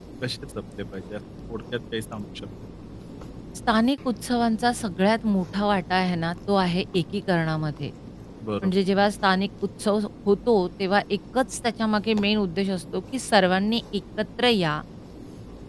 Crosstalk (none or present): none